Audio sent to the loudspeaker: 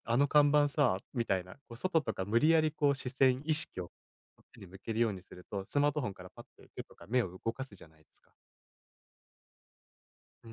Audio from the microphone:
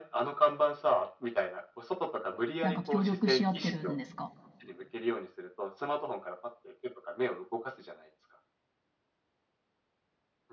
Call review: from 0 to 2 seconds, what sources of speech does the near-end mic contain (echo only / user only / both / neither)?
echo only